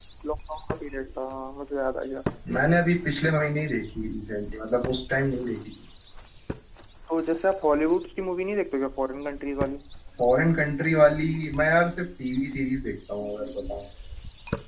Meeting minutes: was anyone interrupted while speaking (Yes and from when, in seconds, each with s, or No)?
No